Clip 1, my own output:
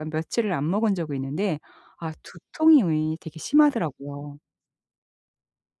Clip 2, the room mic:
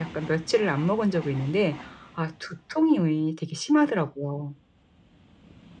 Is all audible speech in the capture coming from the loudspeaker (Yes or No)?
Yes